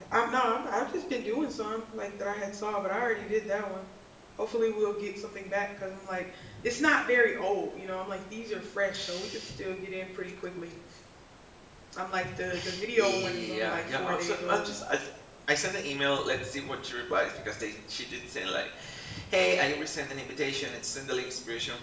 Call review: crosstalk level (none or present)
present